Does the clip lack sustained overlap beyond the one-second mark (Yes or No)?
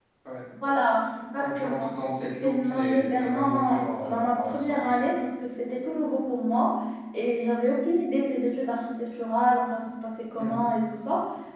No